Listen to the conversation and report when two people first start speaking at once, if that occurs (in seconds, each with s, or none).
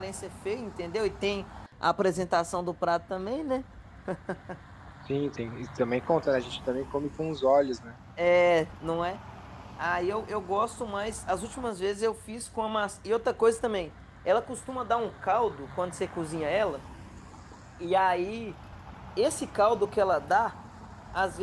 none